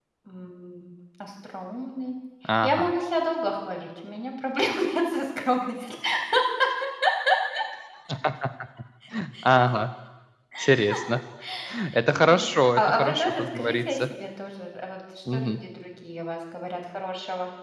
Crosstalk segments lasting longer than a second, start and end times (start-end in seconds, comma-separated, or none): 12.3-14.0